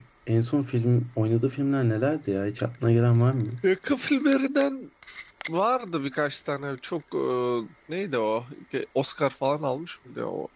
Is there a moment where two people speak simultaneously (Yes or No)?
No